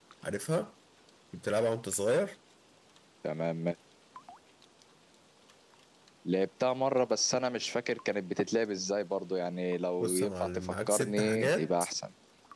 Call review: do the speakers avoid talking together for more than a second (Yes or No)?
No